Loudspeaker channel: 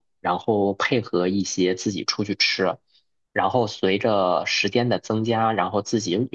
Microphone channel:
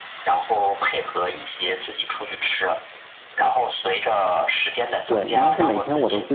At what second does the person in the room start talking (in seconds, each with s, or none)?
5.1 s